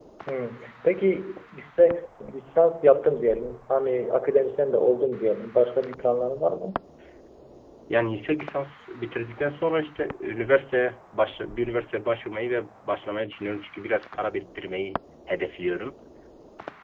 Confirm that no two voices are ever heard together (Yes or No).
Yes